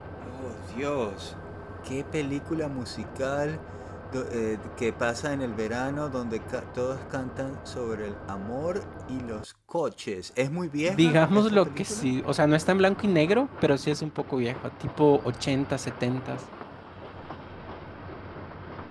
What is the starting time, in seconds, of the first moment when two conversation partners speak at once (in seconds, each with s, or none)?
10.9 s